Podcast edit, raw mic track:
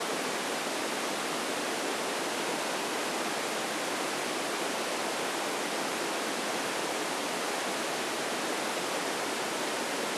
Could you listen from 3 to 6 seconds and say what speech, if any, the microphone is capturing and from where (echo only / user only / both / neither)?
neither